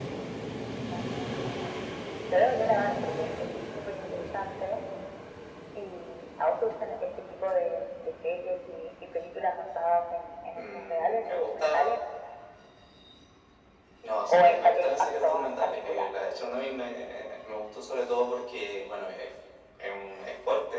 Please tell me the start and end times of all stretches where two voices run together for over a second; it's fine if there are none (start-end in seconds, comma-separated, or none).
10.5-11.9, 14.3-16.1